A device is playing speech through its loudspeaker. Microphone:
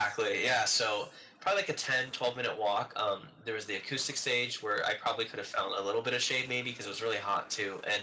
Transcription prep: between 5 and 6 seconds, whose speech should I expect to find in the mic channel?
echo only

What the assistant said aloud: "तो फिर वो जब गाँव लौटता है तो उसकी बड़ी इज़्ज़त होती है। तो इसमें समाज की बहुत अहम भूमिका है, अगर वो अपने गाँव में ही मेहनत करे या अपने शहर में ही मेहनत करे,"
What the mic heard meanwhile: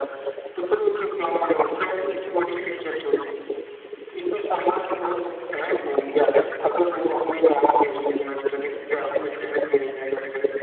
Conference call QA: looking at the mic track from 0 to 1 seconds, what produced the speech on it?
echo only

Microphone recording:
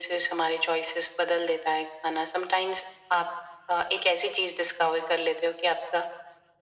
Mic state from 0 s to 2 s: echo only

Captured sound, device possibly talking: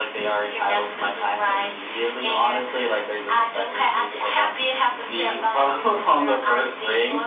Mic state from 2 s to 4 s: echo only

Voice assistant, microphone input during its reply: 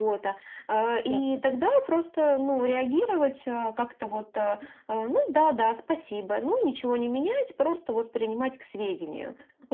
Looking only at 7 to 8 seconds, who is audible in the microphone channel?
echo only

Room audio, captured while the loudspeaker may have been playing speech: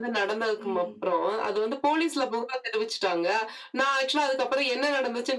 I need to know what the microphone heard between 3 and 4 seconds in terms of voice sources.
echo only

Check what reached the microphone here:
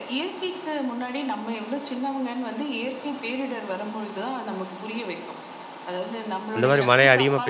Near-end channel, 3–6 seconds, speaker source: echo only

